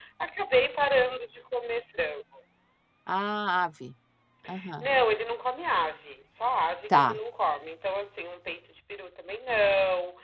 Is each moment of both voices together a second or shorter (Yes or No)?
Yes